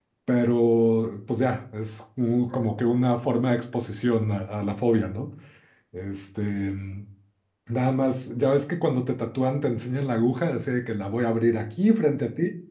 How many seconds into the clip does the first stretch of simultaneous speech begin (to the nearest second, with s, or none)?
none